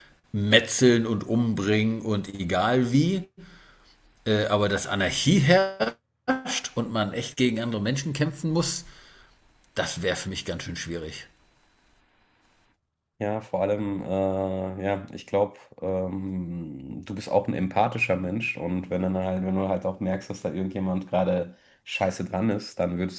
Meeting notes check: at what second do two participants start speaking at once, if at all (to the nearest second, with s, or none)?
none